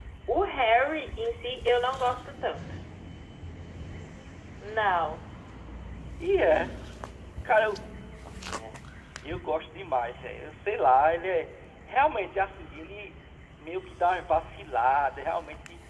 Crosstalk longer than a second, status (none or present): none